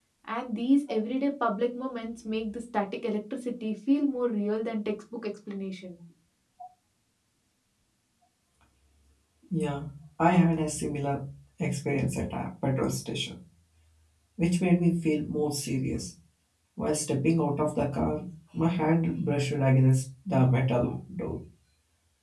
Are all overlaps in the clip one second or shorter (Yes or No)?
Yes